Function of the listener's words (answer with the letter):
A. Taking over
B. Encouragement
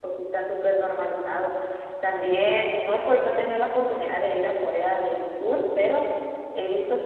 B